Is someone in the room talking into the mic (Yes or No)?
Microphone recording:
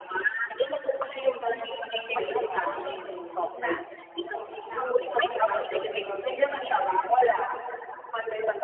Yes